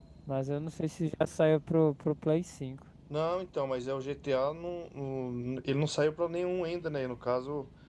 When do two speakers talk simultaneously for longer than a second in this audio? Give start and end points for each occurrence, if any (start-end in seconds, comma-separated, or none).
none